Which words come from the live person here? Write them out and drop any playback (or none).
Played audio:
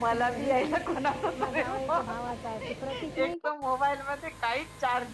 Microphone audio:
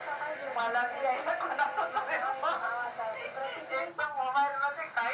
none